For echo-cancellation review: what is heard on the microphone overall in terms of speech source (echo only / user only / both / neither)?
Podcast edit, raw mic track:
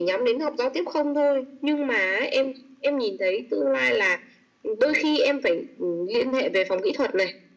echo only